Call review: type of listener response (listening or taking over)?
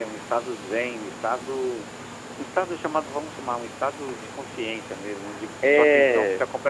listening